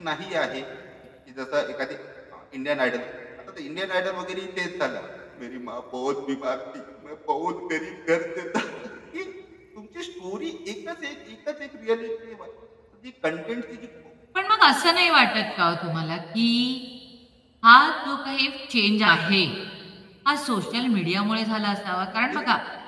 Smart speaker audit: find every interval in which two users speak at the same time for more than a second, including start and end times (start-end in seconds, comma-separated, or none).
none